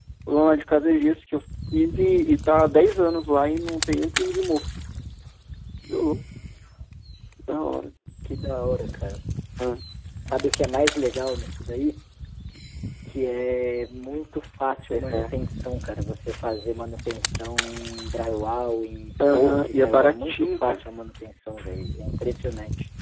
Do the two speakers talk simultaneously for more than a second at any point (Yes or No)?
Yes